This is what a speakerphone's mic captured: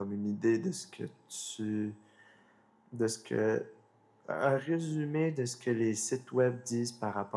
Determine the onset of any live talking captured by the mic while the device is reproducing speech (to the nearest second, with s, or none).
none